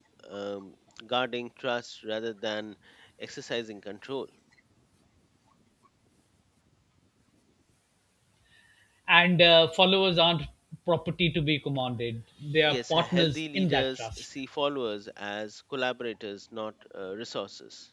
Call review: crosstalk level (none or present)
present